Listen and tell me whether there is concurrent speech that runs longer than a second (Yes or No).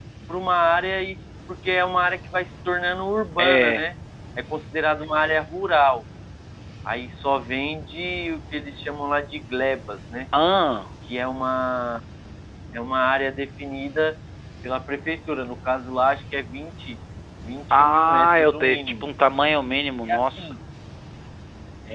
Yes